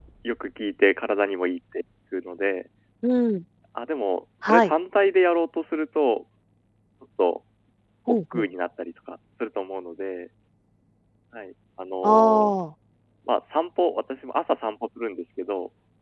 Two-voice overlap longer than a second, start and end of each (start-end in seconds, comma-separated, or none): none